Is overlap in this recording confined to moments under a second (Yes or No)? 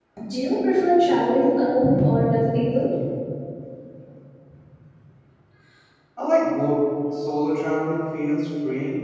Yes